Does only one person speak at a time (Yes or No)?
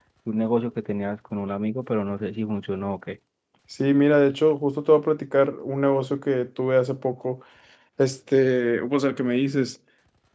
Yes